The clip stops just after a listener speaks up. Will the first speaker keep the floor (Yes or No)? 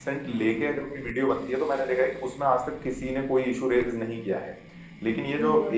Yes